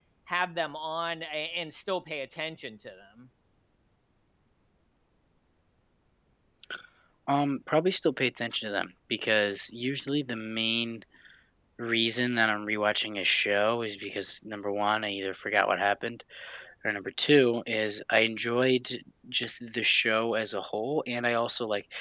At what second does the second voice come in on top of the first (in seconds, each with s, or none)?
none